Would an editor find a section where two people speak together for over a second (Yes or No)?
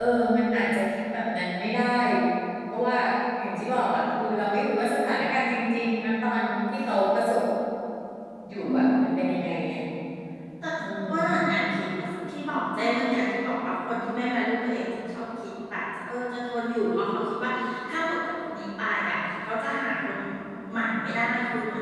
No